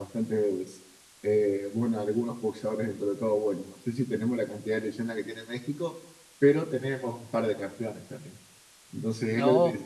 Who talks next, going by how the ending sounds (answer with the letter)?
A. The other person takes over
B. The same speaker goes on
B